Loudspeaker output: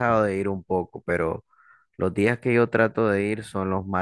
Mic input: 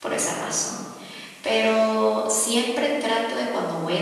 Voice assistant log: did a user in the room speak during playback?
Yes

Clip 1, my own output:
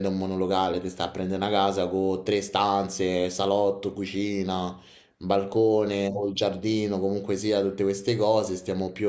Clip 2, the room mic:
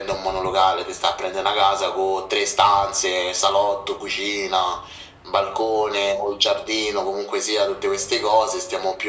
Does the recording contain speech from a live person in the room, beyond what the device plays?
No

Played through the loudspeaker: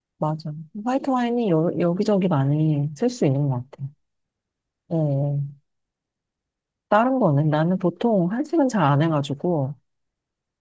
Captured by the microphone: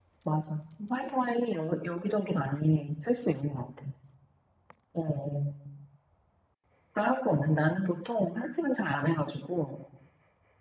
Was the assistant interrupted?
No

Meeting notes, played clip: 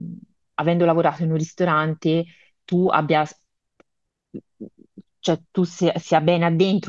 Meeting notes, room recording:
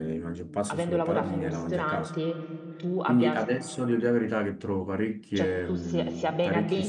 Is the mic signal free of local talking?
No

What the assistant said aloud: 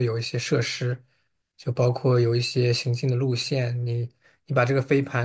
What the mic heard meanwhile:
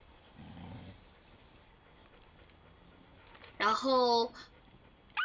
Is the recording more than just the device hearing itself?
Yes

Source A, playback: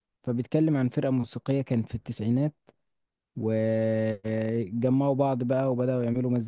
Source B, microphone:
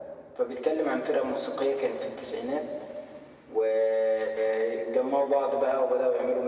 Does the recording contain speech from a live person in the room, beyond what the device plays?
No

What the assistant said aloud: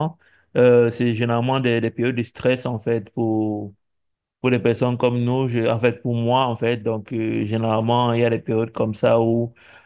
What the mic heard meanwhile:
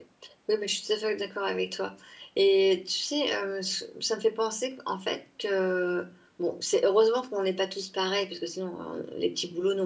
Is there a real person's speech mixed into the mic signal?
Yes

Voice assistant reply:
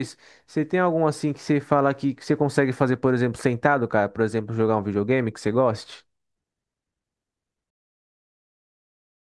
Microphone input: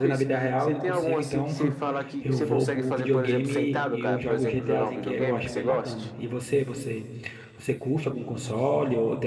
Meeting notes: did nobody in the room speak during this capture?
No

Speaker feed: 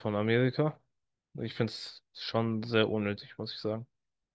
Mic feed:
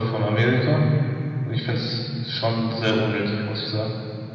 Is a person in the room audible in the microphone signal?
No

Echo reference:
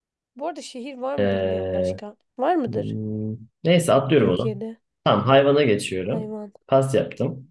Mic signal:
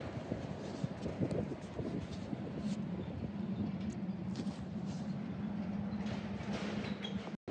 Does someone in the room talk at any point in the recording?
No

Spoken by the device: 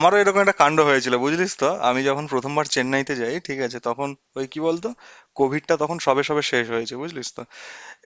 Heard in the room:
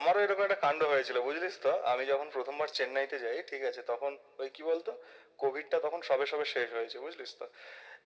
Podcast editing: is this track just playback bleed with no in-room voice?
Yes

